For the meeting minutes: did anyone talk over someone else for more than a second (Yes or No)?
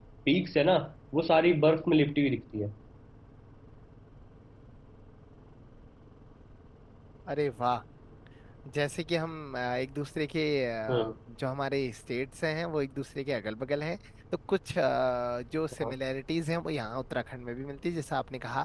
No